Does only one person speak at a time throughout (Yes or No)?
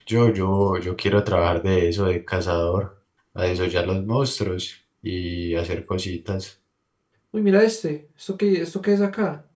Yes